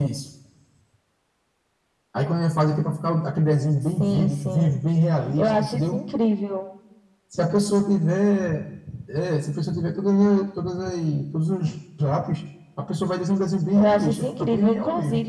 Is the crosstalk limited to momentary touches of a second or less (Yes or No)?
No